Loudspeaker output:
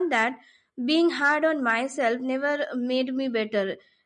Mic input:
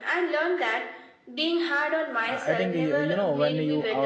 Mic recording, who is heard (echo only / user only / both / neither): both